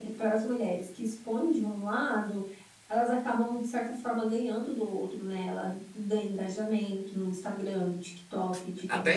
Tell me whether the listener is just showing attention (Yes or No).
Yes